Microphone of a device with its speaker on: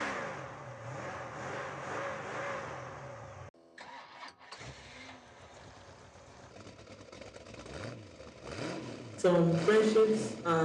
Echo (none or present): none